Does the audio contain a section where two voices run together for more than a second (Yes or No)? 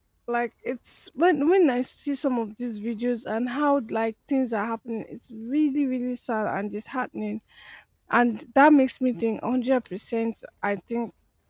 No